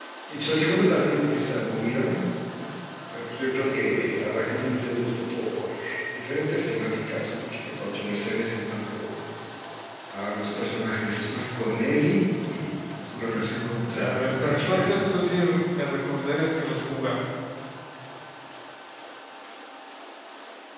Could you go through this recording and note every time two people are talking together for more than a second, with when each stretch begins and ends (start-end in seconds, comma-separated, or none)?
13.3-14.9